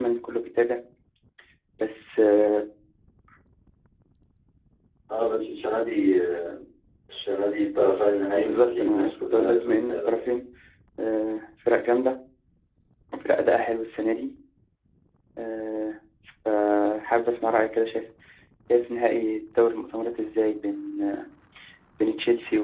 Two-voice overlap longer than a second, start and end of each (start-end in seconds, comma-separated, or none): 8.4-10.2